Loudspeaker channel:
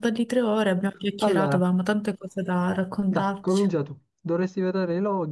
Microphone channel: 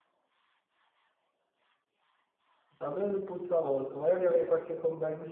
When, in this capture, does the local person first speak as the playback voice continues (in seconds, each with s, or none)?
2.9 s